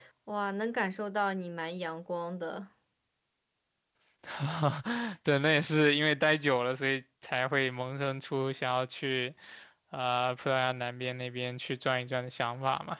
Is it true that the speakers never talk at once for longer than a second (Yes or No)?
Yes